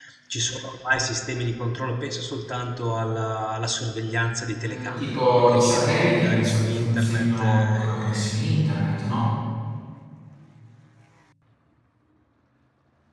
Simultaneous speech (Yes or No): Yes